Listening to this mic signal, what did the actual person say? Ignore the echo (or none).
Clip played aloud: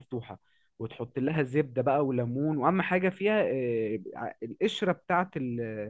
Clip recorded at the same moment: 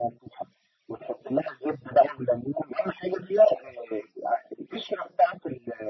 none